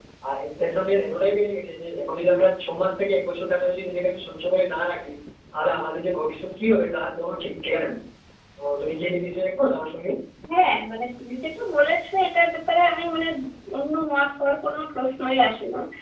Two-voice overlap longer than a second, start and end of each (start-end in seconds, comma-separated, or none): none